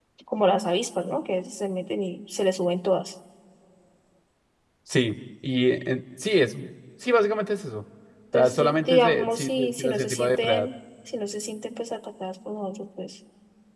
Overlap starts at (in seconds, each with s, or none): 8.3 s